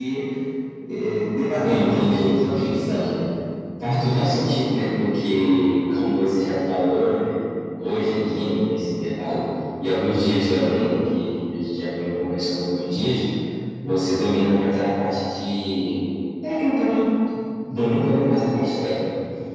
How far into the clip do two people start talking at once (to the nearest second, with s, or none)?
2 s